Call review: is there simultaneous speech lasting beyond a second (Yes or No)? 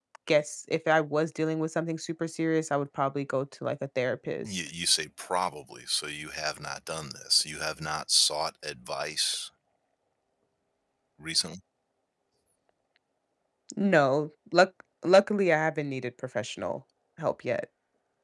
No